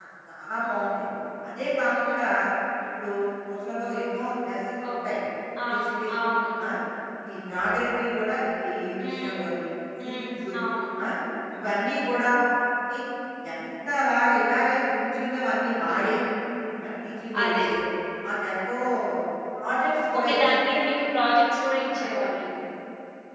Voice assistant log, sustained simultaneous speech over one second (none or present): none